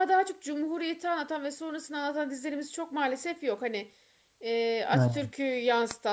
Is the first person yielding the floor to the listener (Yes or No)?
No